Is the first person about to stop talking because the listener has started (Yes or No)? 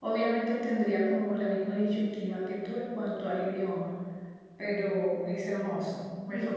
Yes